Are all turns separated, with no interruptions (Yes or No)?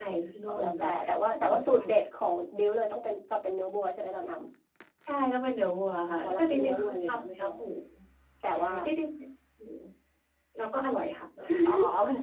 No